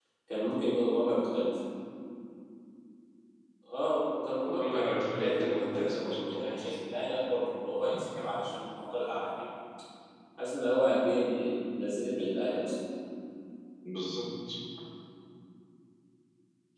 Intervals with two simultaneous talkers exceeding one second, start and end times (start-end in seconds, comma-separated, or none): 4.6-6.8